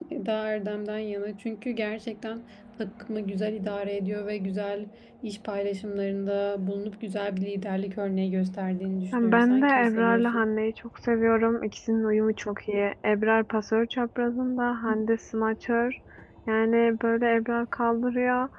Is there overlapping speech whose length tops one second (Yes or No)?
Yes